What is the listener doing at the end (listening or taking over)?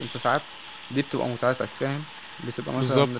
listening